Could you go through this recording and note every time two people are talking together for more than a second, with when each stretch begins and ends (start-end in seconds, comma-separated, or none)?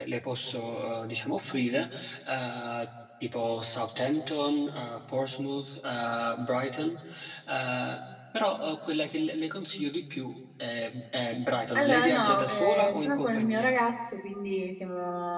11.8-13.8